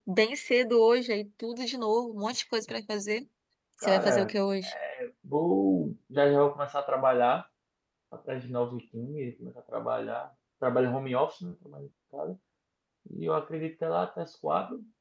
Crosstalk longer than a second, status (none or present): none